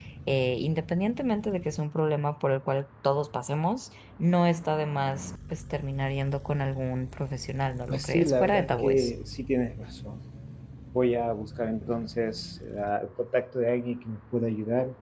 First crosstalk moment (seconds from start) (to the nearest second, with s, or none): 8 s